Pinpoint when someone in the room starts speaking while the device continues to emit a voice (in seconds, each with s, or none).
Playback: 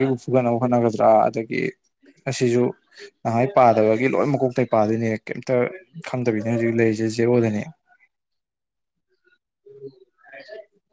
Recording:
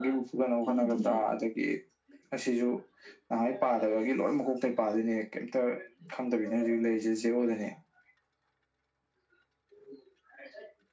0.7 s